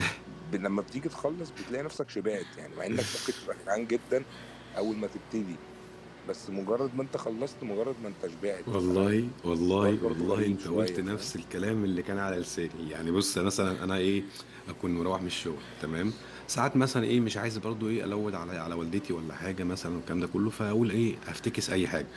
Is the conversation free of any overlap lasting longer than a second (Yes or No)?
No